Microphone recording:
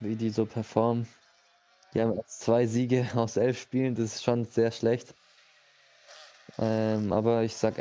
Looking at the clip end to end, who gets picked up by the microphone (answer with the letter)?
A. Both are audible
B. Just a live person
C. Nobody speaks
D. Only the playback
B